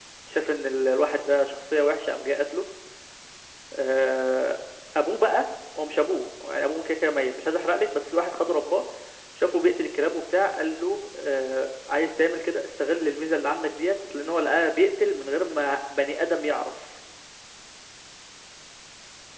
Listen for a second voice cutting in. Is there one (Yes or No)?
No